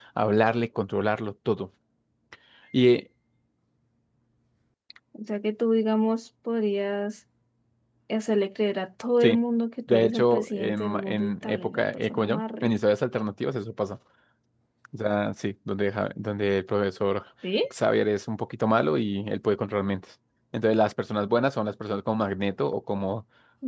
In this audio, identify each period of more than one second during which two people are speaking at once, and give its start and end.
9.9-12.8

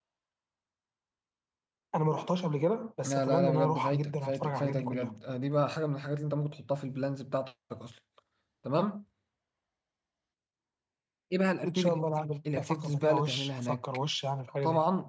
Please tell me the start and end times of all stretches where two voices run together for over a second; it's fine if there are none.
3.0-5.1, 12.6-13.8

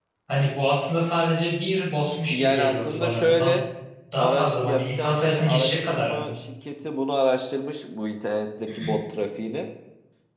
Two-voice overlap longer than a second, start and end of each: 2.3-3.6, 4.2-6.3

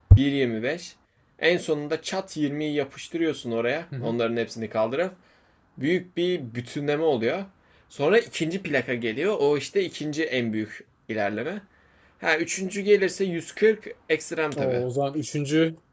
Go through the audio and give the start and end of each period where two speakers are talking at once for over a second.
none

